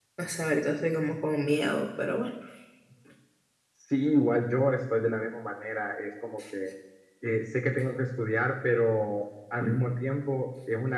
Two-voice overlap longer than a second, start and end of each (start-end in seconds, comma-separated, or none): none